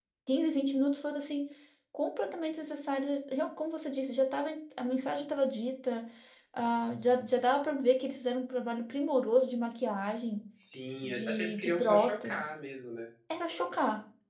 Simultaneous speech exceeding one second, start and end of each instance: 11.0-12.5

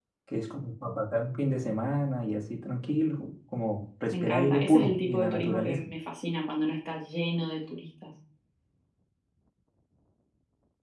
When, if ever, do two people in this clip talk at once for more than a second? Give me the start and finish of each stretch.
4.1-5.8

